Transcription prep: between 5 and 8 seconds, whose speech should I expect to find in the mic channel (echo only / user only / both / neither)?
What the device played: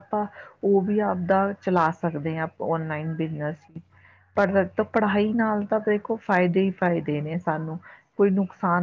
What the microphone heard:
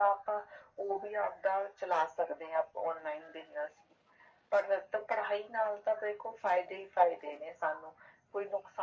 echo only